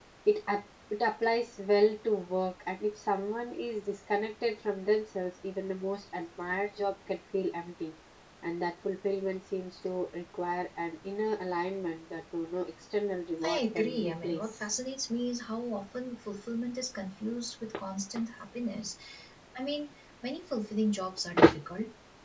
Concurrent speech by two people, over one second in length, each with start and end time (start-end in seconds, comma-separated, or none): 13.4-14.6